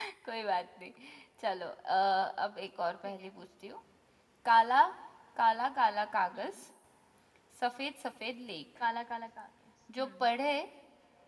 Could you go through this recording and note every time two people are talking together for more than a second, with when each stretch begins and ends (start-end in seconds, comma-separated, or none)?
none